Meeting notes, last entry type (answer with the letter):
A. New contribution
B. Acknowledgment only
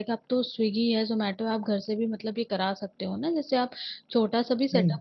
B